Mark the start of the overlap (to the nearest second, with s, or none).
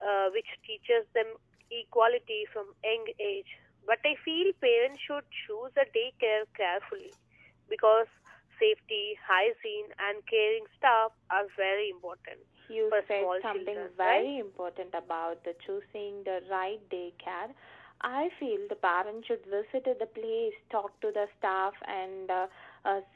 13 s